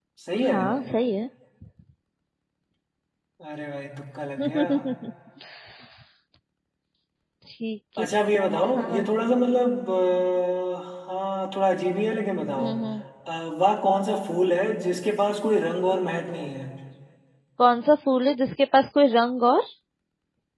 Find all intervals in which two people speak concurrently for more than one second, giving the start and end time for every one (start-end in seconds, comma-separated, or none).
none